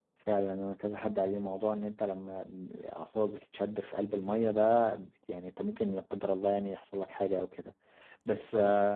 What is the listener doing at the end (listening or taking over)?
listening